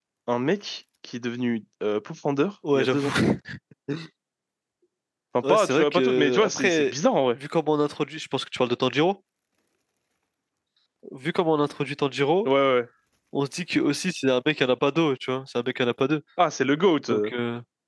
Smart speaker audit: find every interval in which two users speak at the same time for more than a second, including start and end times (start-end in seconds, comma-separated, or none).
5.5-6.9